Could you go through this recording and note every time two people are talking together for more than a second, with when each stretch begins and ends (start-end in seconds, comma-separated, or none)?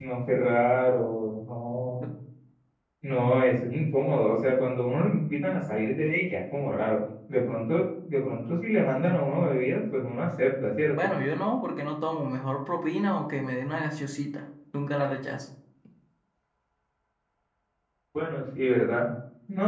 none